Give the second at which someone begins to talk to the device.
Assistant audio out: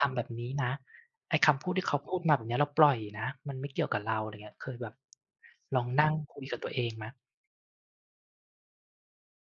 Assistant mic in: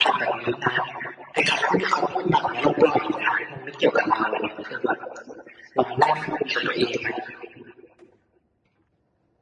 none

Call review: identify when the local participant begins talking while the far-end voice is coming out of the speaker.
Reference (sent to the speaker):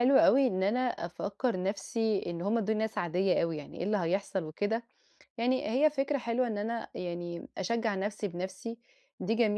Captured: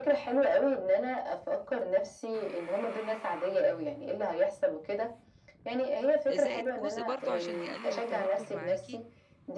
6.3 s

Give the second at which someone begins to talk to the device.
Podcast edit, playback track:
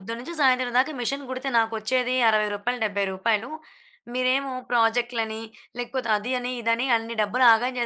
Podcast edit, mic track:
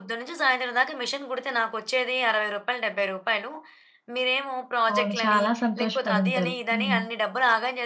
4.9 s

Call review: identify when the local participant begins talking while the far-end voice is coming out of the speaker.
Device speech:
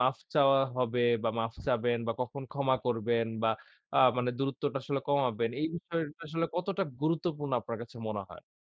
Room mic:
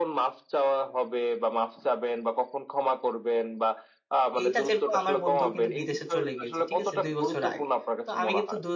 4.4 s

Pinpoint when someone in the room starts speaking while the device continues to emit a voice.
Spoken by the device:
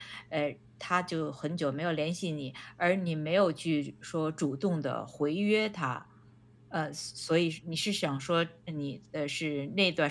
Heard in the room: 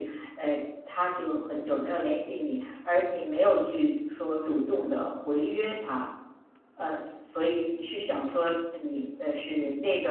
none

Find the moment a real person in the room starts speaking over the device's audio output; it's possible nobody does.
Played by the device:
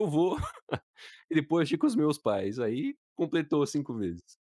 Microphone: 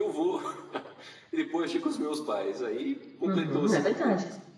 3.2 s

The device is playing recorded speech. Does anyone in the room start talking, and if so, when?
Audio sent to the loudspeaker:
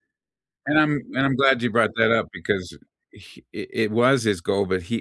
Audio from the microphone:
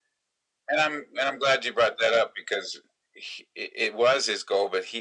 none

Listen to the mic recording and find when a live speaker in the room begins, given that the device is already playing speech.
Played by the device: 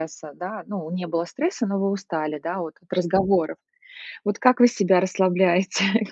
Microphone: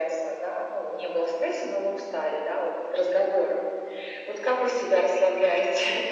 none

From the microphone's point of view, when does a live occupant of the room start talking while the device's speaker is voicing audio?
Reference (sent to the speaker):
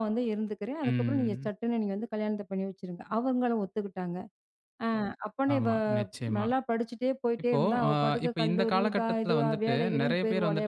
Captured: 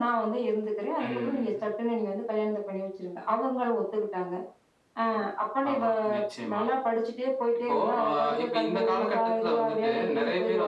none

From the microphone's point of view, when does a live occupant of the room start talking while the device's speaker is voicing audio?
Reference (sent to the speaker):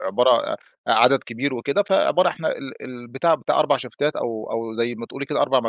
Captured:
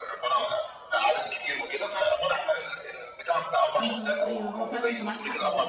3.8 s

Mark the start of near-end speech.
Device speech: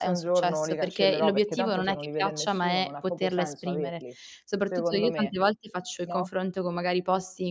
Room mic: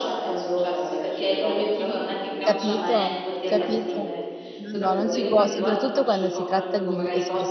2.4 s

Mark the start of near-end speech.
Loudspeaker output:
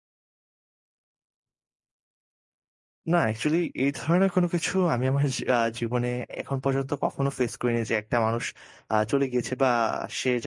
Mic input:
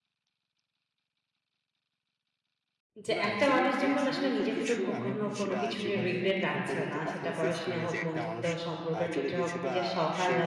3.0 s

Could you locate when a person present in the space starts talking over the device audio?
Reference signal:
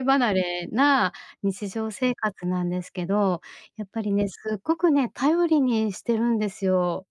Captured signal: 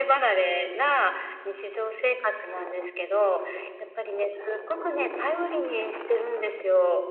none

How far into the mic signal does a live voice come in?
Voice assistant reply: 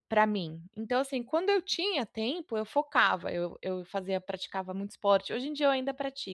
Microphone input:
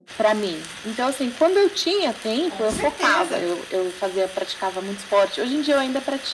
2.4 s

